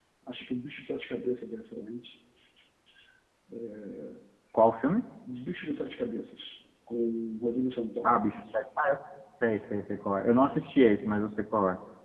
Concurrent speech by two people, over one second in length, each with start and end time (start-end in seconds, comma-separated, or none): none